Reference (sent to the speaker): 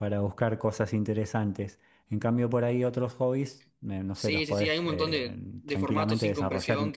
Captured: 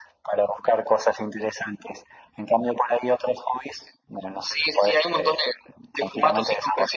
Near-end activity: none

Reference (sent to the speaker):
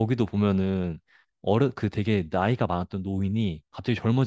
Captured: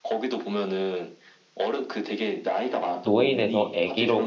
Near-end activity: present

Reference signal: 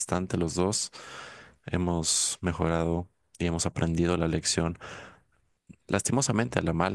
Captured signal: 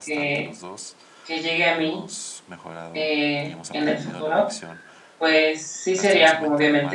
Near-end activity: present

